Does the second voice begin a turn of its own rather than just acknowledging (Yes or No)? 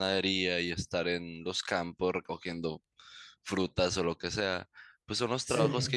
No